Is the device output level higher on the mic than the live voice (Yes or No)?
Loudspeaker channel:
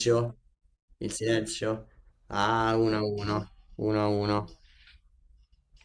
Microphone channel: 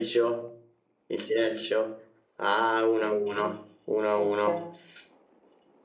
Yes